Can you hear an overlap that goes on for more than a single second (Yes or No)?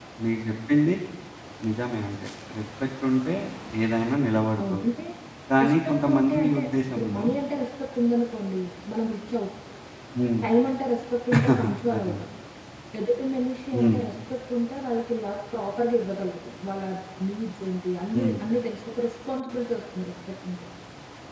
Yes